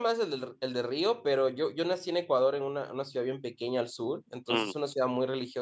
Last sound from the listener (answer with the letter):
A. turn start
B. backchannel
B